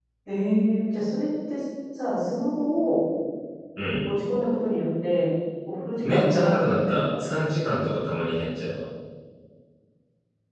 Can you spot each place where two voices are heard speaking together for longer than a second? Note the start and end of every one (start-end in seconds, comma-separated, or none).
6.0-7.4